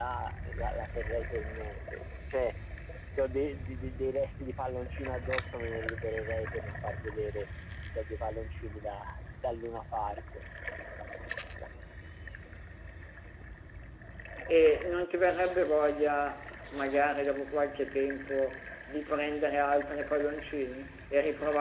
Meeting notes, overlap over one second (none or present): none